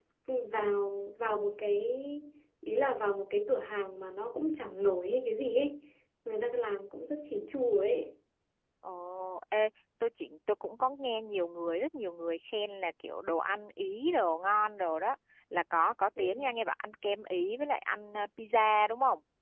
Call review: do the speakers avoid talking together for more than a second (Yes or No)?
Yes